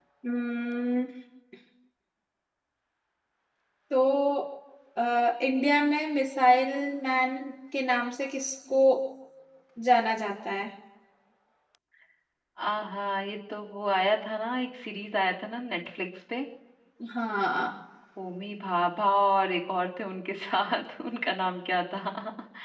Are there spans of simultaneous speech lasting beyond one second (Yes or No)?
No